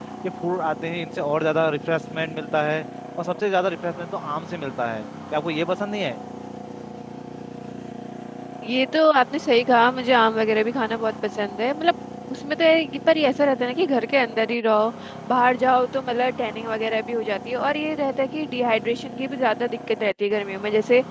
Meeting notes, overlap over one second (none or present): none